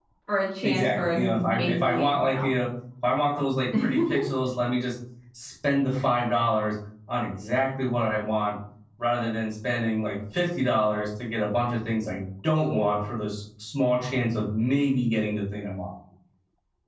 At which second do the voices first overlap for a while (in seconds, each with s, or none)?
0.6 s